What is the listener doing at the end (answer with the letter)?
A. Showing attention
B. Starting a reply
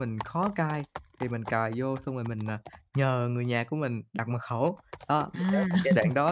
A